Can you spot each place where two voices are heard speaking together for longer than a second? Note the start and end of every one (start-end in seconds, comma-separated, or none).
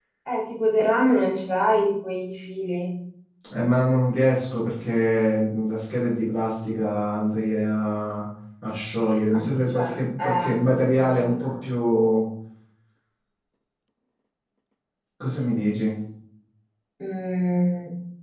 9.3-11.7